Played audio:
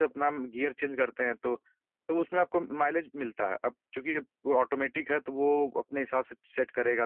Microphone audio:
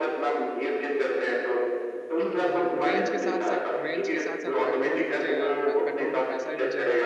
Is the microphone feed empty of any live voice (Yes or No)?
No